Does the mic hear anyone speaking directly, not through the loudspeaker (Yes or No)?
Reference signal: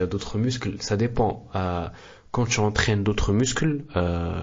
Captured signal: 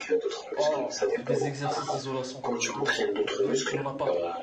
Yes